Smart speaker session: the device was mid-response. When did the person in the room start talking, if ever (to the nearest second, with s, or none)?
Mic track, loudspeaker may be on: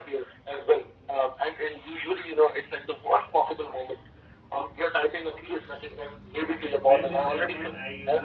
7 s